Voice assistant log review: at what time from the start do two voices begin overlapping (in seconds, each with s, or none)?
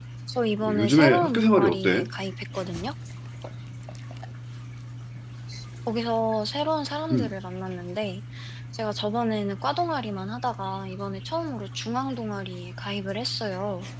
0.6 s